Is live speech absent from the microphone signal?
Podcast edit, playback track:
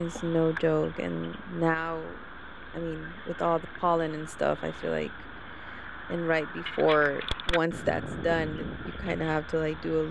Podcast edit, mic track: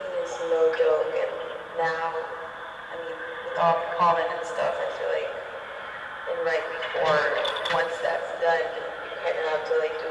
Yes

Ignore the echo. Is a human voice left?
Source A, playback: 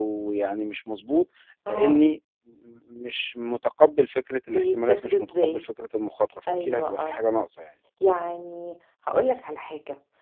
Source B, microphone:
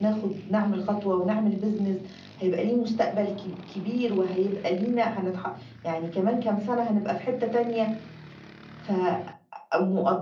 Yes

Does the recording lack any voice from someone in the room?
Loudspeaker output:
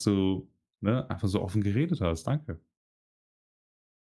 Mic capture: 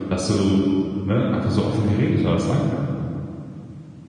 Yes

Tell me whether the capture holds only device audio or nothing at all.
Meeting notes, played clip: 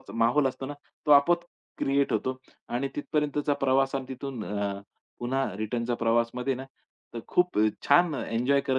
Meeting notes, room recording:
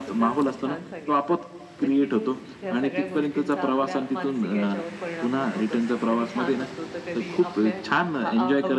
No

